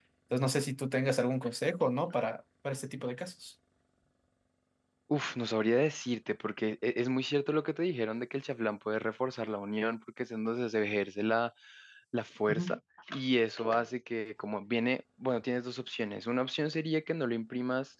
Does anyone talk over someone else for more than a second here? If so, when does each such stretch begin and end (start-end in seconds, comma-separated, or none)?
none